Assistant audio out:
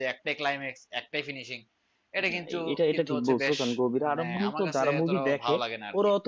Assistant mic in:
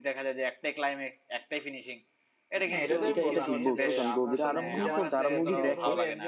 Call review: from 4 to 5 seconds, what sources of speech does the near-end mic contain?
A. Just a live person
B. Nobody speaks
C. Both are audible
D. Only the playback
C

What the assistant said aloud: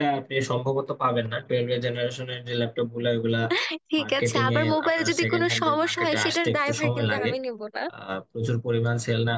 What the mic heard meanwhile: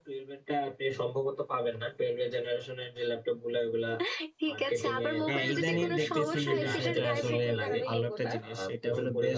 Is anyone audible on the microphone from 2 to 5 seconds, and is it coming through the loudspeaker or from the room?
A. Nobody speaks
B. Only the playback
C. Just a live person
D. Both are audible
B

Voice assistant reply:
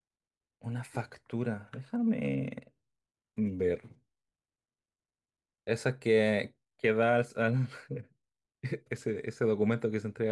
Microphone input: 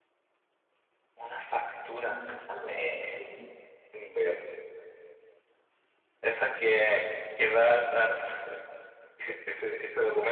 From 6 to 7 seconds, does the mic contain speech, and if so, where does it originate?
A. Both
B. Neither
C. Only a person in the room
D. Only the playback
D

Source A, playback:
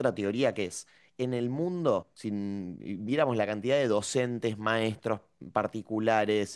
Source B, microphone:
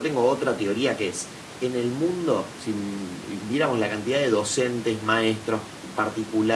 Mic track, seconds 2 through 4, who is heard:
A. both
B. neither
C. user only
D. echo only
D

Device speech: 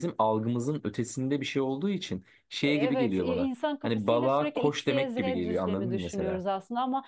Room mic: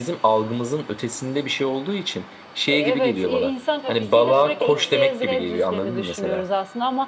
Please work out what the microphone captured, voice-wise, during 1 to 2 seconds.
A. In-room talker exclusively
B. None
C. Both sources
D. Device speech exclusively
D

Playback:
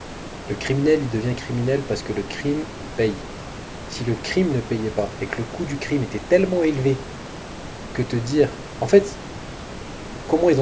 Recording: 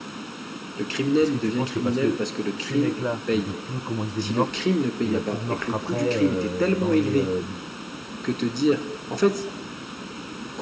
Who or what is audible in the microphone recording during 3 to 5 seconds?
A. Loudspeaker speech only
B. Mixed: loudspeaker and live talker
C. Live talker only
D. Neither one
B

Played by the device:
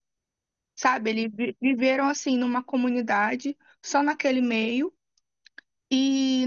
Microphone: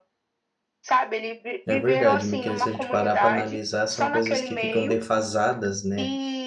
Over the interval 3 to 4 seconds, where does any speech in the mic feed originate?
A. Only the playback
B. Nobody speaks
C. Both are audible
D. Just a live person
C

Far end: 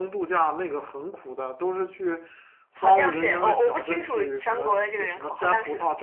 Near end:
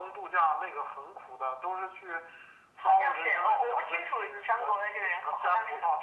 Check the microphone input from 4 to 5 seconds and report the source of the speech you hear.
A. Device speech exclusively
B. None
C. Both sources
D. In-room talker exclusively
A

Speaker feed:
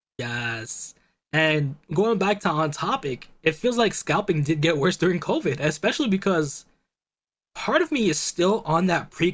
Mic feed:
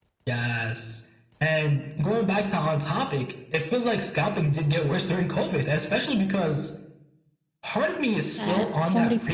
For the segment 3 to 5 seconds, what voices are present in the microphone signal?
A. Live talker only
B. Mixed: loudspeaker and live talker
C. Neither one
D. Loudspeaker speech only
D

